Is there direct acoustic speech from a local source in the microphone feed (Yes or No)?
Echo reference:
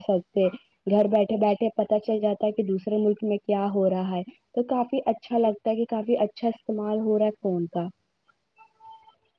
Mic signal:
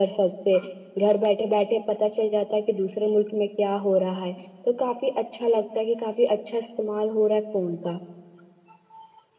No